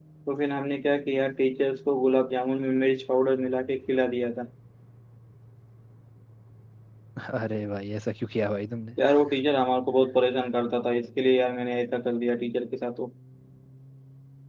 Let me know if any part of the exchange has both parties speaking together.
No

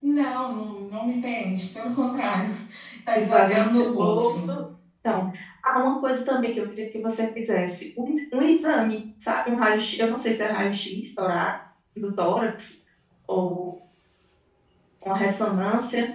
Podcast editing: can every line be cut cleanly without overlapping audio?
No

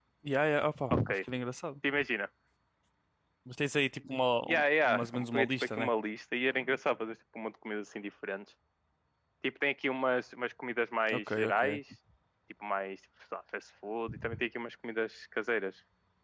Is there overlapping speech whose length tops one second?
Yes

